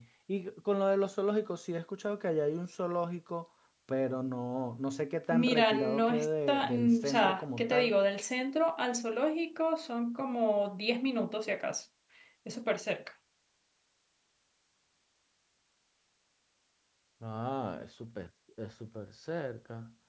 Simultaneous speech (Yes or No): Yes